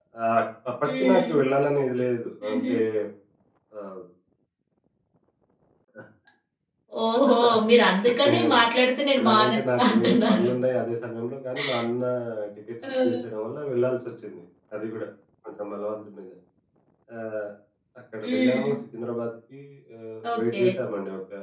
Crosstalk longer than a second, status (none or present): present